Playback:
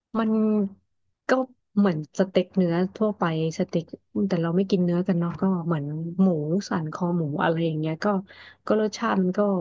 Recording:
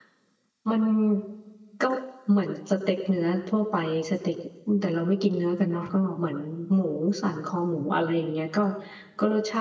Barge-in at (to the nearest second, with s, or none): none